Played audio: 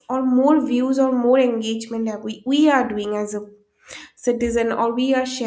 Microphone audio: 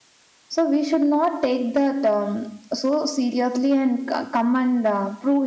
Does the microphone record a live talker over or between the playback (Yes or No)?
Yes